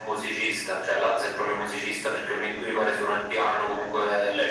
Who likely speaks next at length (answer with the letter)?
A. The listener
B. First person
A